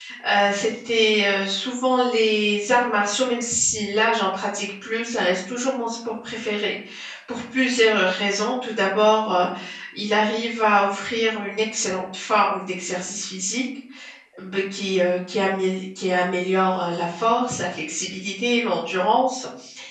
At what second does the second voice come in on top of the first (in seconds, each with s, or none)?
none